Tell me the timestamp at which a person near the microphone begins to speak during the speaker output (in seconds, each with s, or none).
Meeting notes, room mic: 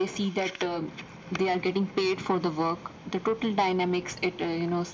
none